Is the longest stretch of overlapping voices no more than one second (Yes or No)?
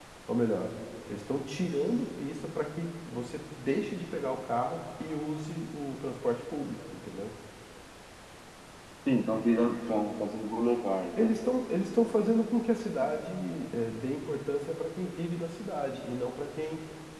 Yes